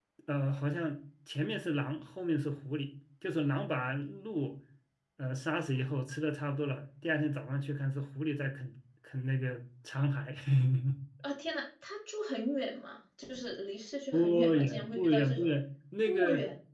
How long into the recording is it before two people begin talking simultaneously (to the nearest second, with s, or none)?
14 s